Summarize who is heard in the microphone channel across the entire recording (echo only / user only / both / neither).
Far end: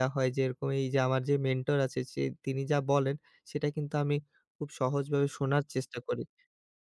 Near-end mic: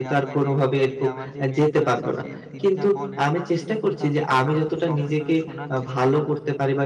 both